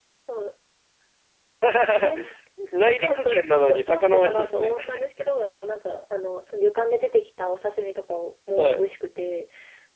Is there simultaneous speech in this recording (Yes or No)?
Yes